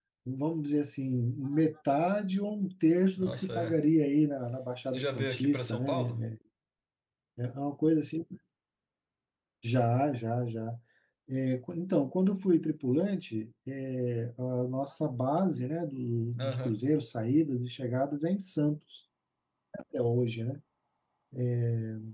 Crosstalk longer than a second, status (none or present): present